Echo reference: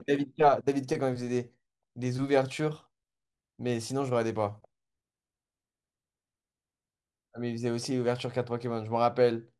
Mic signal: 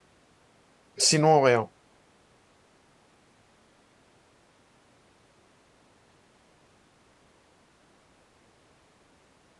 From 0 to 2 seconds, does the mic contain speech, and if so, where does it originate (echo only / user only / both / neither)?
user only